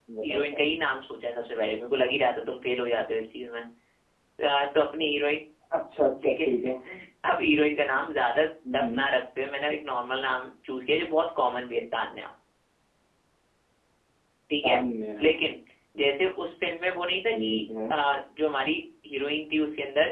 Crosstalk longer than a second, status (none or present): none